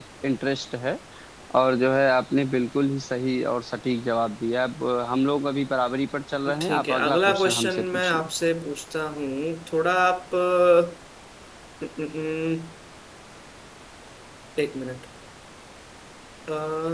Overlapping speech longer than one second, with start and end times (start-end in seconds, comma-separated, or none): 6.6-8.3